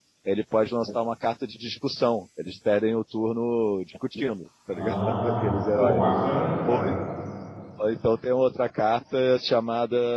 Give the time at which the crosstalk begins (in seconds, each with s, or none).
4.7 s